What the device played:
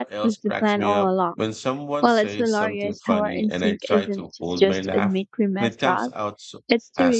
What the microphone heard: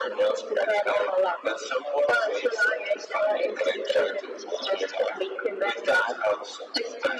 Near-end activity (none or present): none